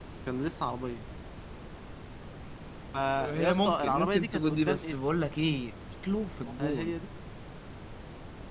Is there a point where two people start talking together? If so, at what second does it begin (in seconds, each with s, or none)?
3.2 s